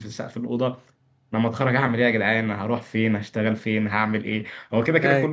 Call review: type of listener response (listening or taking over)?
listening